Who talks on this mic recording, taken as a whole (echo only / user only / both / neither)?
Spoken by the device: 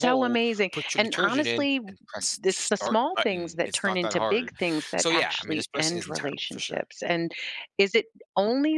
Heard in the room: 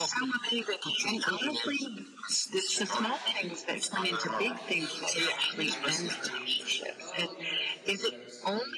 both